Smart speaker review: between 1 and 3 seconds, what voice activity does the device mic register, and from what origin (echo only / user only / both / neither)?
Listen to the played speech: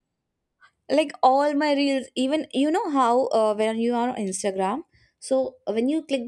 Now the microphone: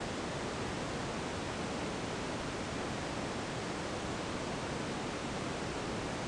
neither